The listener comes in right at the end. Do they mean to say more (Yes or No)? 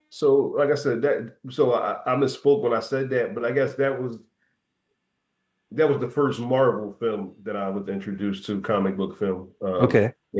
No